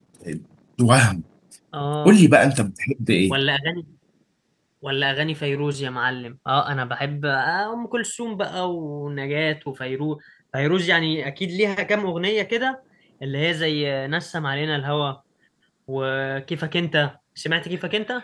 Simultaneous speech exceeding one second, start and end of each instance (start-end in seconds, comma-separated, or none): none